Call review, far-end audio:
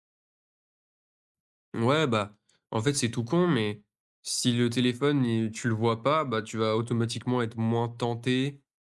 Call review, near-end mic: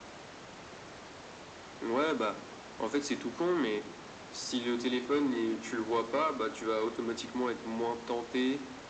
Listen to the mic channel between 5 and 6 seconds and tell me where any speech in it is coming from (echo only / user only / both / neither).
echo only